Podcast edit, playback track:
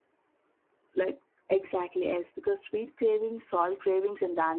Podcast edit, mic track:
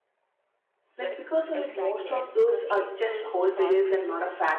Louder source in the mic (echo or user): user